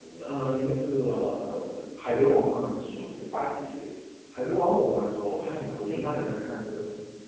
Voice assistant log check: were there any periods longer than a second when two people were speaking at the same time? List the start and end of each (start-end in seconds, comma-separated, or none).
none